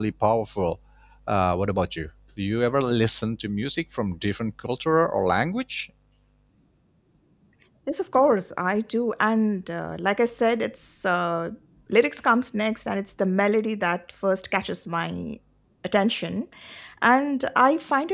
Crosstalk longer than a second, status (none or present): none